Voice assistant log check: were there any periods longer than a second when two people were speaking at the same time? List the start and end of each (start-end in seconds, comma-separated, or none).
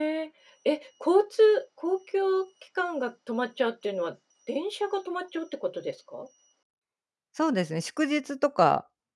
none